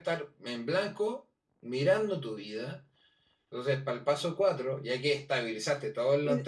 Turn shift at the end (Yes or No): Yes